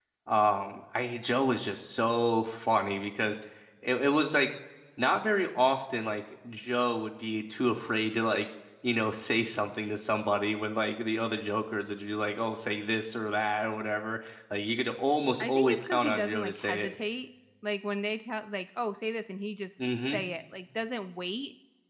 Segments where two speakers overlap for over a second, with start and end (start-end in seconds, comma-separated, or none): 15.4-16.9